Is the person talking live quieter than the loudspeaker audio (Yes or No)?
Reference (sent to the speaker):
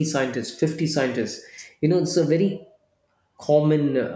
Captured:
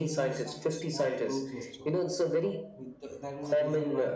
Yes